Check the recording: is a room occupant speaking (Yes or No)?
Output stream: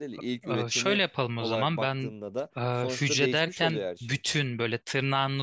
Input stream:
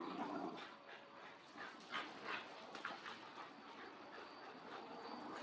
No